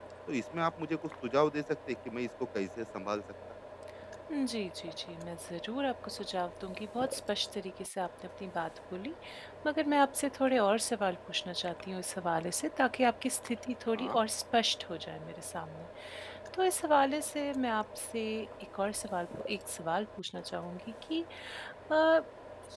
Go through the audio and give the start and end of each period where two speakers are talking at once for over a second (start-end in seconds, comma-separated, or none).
none